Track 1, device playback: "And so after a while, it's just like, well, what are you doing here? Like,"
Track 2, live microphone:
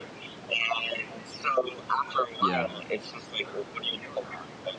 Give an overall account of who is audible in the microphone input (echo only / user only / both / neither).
both